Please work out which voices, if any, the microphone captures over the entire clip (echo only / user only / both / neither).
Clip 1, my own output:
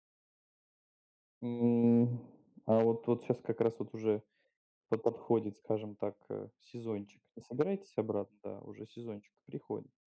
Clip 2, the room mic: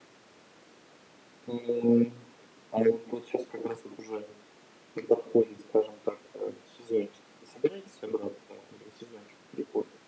echo only